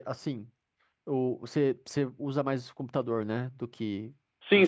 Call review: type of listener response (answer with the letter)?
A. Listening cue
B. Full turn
B